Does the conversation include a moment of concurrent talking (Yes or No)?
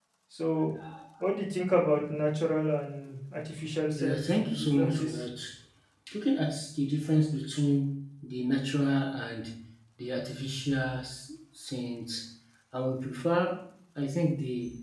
Yes